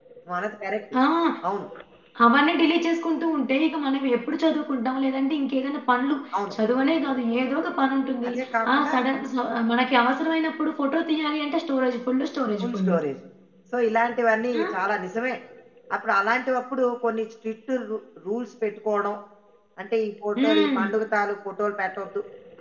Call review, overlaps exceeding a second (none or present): none